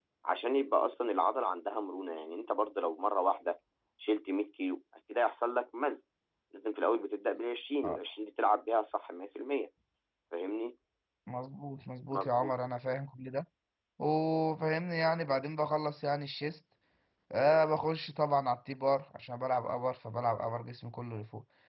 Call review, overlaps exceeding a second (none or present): none